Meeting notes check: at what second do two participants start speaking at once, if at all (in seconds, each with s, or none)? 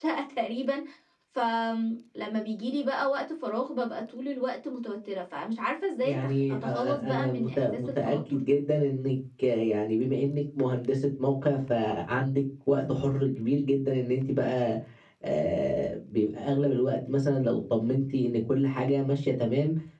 6.0 s